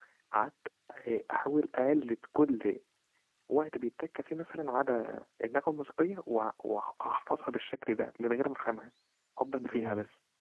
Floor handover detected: Yes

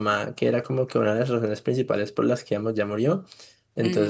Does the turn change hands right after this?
No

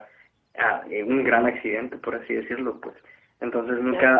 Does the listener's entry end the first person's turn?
No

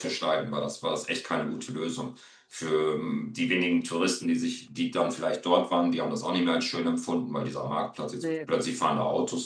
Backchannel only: Yes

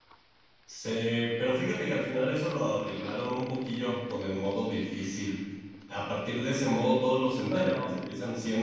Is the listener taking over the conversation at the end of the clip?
No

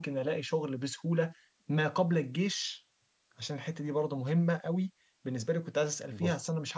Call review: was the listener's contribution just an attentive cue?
Yes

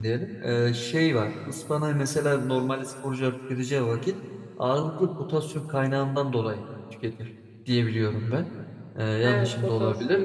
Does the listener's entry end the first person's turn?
Yes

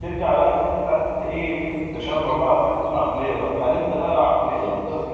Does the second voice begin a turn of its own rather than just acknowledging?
No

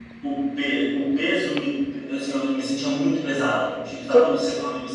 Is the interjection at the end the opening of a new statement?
No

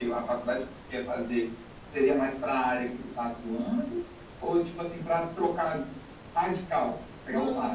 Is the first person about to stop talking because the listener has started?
Yes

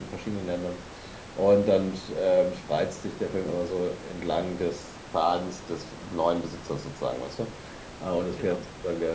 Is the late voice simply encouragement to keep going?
Yes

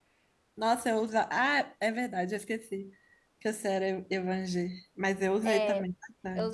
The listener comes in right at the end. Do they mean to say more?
Yes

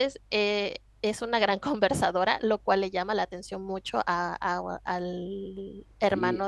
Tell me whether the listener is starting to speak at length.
Yes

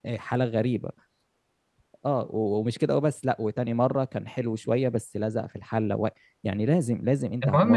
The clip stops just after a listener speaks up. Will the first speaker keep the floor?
No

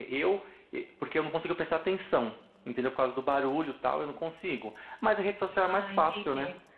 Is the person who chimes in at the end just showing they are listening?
Yes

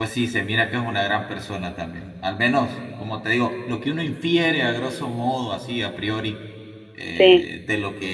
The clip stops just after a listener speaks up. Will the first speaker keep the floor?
Yes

